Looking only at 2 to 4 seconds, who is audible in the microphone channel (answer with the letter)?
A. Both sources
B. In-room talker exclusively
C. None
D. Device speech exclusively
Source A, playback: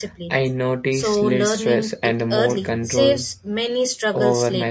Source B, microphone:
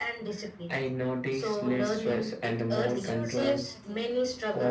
A